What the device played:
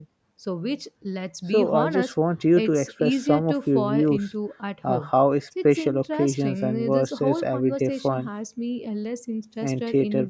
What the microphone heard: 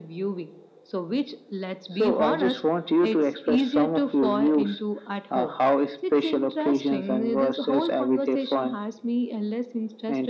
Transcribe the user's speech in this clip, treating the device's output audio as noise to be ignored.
none

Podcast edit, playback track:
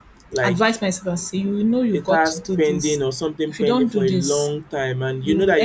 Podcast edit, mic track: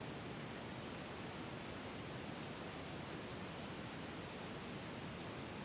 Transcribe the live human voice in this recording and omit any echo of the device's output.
none

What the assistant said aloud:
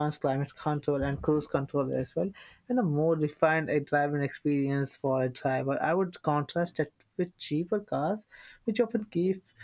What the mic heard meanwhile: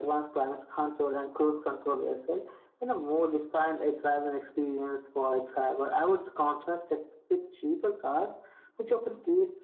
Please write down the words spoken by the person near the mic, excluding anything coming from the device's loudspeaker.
none

